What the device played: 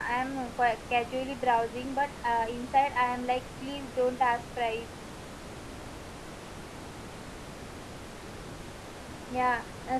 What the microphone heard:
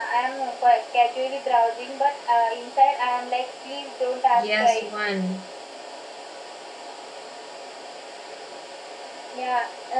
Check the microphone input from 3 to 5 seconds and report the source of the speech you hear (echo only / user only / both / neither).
both